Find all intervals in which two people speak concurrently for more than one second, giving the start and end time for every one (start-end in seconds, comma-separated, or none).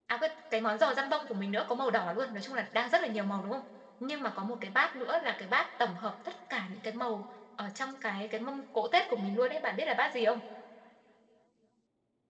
none